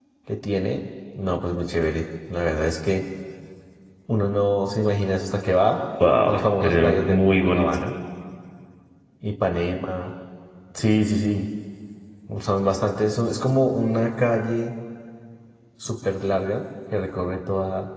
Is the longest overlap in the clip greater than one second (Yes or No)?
Yes